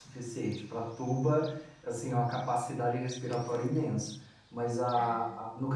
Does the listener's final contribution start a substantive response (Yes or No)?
No